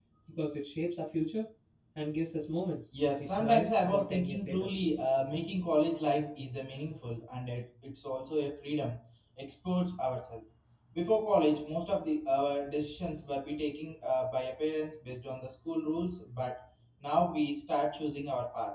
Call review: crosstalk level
present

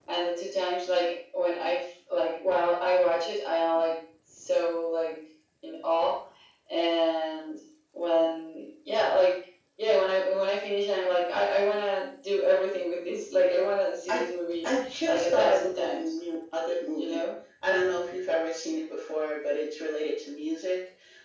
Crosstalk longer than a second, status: present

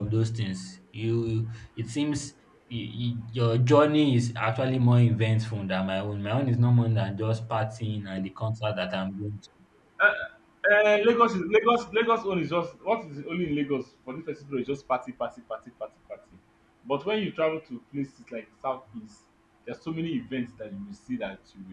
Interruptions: none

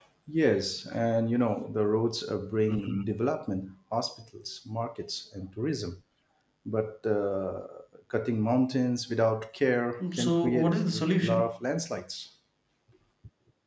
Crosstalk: present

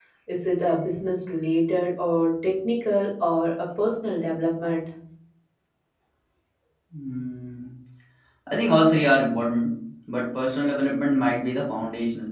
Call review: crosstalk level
none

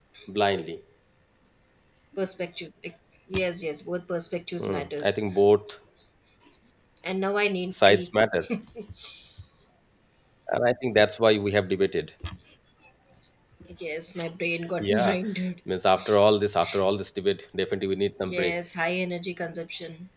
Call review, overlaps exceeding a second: none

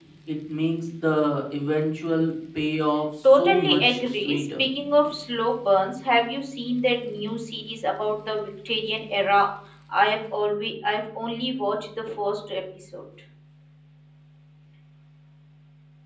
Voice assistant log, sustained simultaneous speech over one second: present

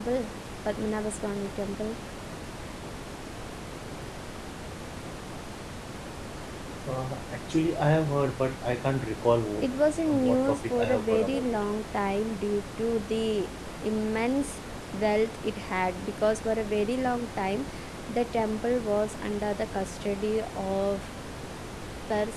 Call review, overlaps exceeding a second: present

